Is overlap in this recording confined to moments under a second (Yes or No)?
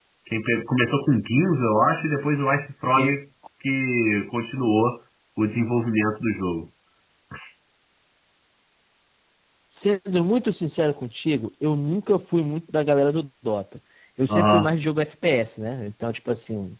Yes